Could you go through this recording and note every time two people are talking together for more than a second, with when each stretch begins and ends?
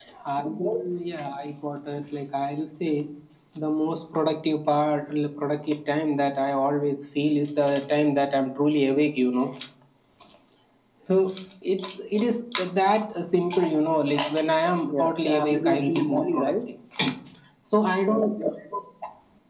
14.9-16.5

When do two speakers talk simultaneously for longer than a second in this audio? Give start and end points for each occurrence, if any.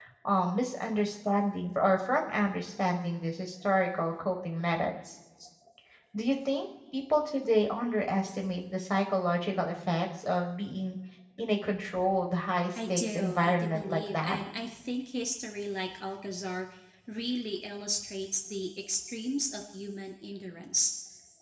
12.8-14.4

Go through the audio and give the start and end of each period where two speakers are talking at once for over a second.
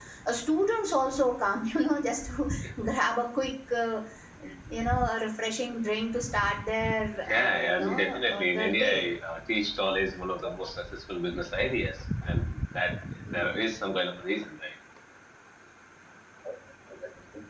7.3-9.1

